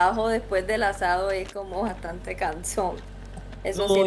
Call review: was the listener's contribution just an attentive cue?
No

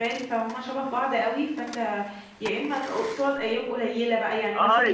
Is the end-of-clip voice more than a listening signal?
Yes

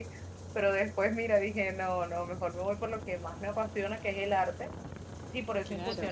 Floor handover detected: No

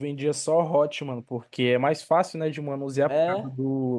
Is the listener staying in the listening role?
Yes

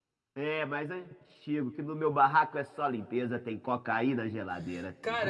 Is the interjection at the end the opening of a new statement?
Yes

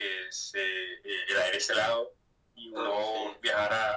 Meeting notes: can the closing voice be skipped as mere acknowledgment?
Yes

